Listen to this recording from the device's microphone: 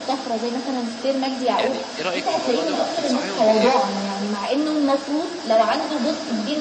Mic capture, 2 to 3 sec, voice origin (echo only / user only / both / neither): both